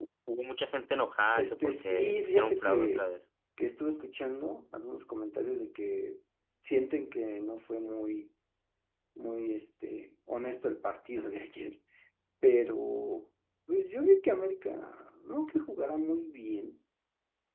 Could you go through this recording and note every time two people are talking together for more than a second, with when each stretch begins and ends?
1.3-3.1

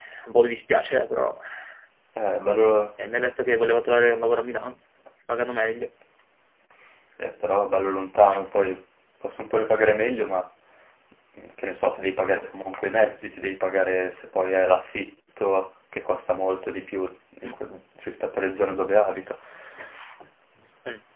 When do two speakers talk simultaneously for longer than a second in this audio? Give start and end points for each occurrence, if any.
none

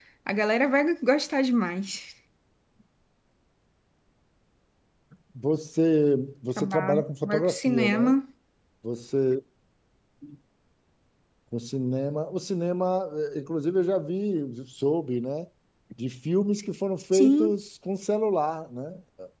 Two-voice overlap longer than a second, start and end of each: 6.6-8.2

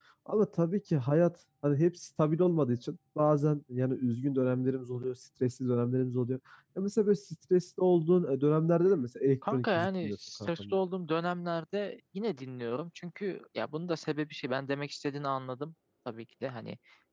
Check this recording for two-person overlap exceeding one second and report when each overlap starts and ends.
9.5-10.8

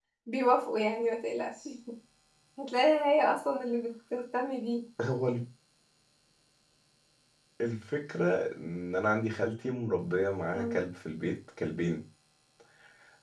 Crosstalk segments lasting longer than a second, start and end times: none

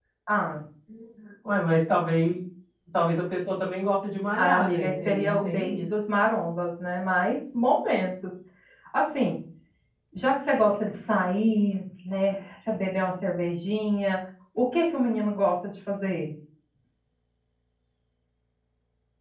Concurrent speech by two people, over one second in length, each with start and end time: 4.4-5.8

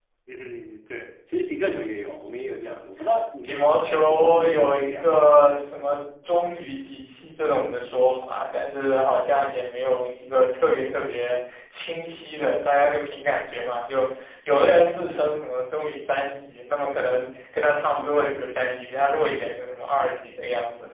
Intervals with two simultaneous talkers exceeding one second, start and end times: 3.4-6.0

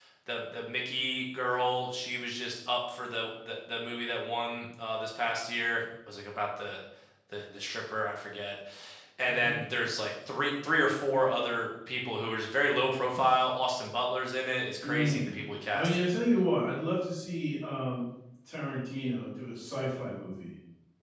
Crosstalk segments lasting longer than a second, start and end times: none

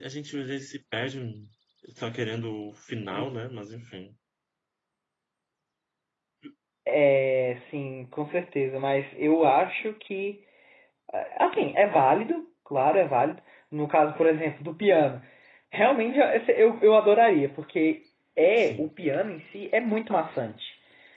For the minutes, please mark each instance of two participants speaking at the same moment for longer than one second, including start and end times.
none

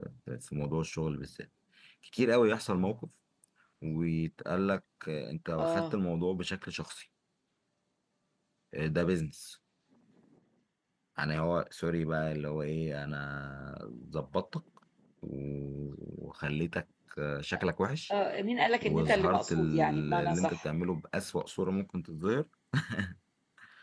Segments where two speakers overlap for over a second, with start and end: 18.9-20.6

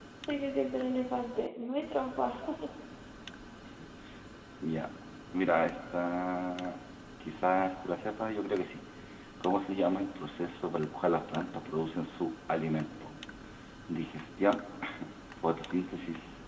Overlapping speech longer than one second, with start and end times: none

